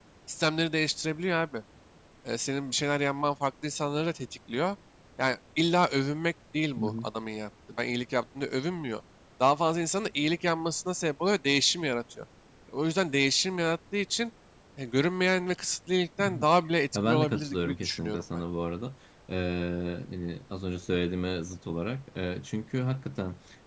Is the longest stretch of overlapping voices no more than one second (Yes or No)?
No